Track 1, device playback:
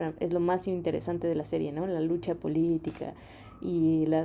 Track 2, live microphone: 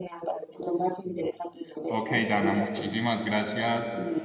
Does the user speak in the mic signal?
Yes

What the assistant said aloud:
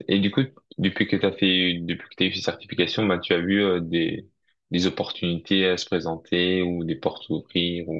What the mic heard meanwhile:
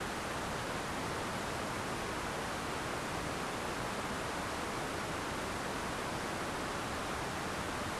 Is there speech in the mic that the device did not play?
No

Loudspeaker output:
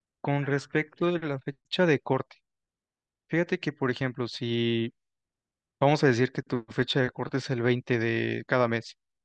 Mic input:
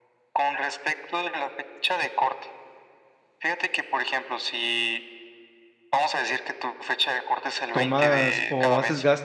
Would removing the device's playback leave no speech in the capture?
No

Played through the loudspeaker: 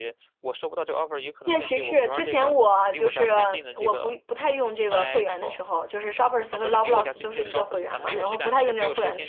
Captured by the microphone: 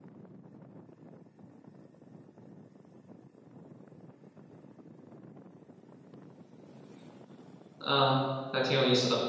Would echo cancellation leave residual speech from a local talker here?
Yes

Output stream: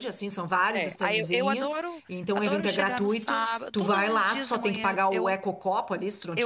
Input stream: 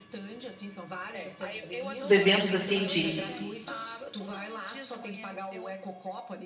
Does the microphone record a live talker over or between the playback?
Yes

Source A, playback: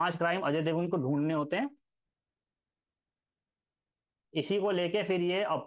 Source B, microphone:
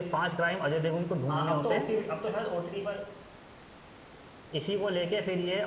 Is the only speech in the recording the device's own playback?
No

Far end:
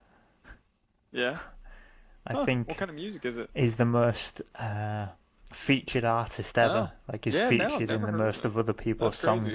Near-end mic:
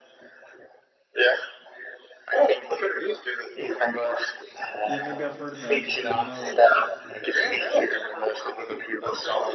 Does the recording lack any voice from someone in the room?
No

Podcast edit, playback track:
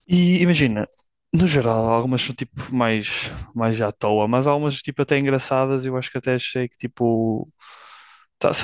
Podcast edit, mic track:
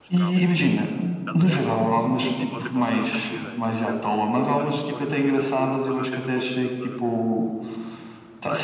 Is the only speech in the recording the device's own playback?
No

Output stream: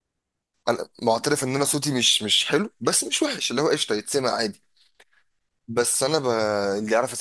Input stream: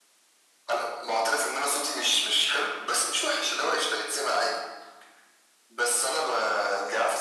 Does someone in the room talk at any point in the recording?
No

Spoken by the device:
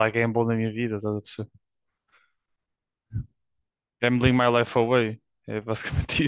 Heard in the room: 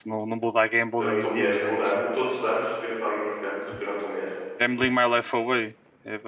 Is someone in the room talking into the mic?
Yes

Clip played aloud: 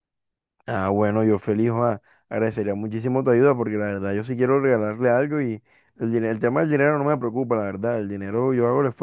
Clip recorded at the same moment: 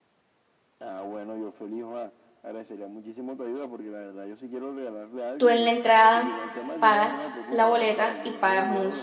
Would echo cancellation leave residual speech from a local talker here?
Yes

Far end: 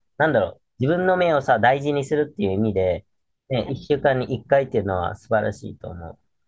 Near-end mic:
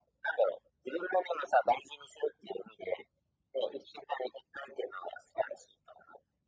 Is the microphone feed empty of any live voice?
Yes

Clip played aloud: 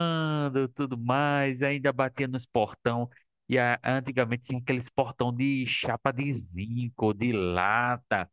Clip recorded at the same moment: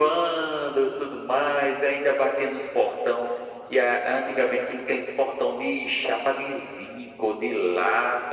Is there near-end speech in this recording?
No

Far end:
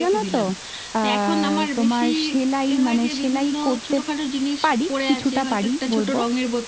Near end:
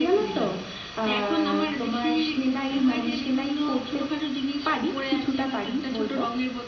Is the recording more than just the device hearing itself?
Yes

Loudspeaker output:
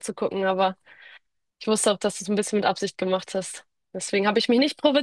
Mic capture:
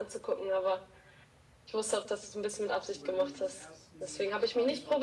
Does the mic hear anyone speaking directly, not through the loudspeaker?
Yes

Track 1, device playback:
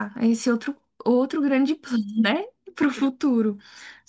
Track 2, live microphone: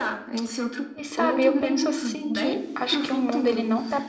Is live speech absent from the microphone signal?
No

